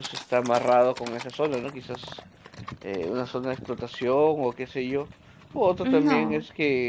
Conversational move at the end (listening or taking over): listening